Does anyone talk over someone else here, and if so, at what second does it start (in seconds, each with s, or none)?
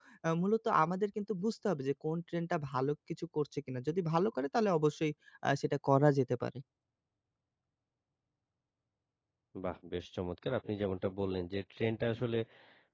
none